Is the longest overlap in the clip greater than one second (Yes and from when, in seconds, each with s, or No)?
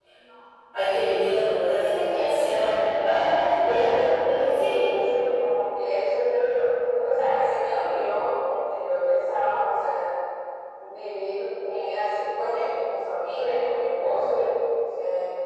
Yes, from 1.8 s